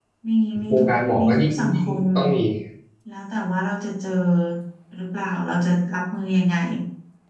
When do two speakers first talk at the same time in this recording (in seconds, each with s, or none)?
0.7 s